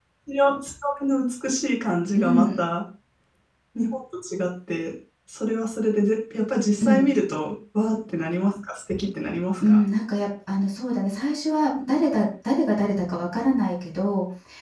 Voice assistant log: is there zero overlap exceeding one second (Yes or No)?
Yes